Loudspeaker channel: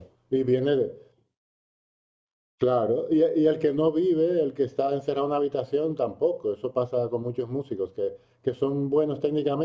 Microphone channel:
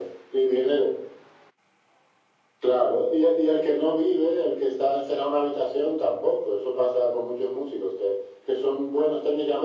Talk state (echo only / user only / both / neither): echo only